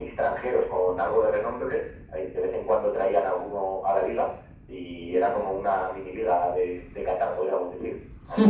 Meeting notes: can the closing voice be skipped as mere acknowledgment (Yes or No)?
No